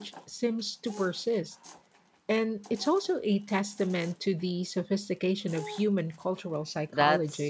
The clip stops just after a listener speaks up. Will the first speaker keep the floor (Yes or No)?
No